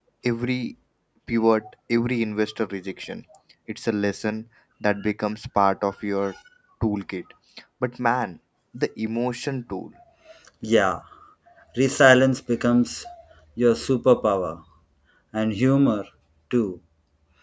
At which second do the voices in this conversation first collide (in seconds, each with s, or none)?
none